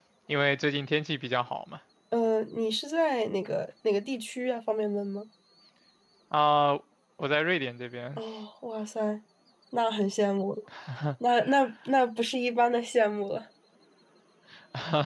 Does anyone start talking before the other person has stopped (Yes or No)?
No